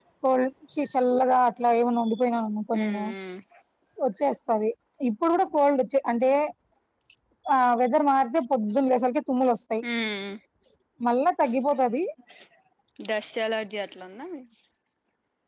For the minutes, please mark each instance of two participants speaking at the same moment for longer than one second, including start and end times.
none

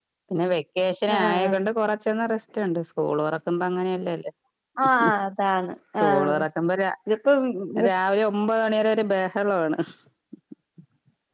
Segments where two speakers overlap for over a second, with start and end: none

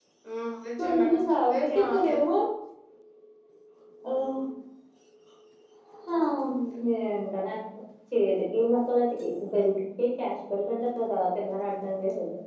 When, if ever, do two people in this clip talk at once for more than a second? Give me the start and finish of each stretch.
0.8-2.2

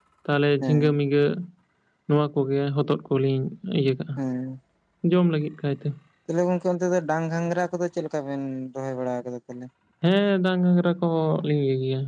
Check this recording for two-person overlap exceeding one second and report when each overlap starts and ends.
none

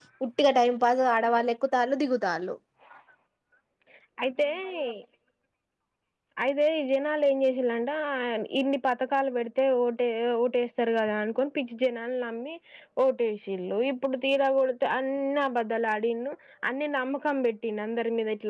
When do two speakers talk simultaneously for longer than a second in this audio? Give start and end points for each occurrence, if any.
none

